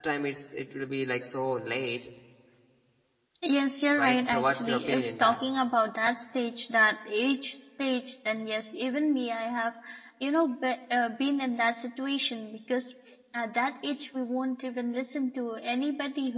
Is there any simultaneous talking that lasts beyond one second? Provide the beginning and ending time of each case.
4.0-5.4

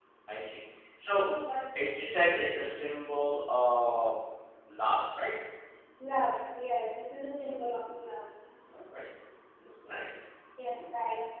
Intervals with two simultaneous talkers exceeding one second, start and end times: none

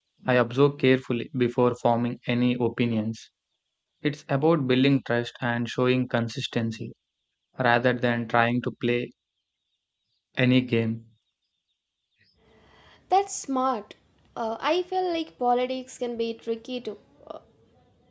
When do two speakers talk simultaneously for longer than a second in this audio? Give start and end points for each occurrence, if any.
none

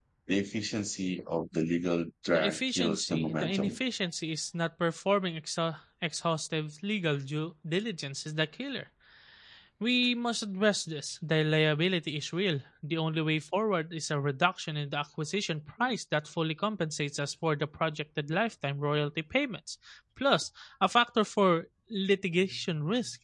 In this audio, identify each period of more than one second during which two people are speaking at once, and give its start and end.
2.3-3.8

